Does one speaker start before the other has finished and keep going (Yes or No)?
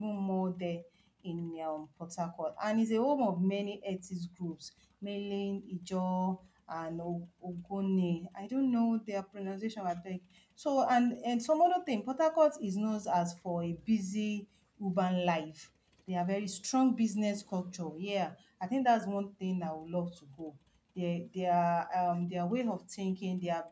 No